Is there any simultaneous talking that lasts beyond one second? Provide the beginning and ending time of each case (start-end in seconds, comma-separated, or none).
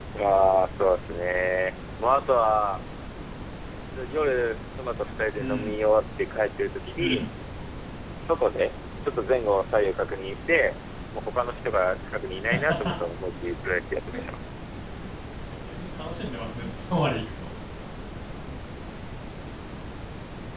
none